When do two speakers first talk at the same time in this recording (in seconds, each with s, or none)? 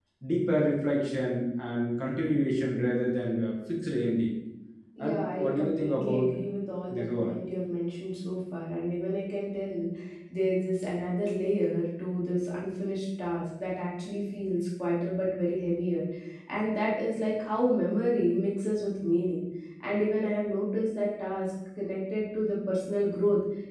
5.0 s